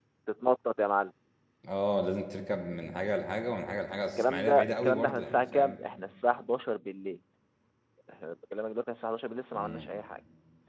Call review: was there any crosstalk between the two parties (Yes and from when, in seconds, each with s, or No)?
Yes, from 4.2 s